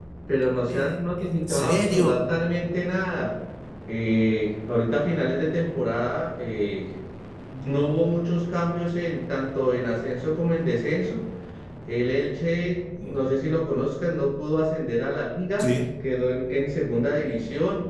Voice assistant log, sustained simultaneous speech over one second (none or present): present